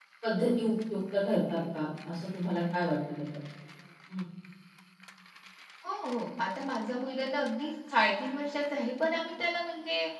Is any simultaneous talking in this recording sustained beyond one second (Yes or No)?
No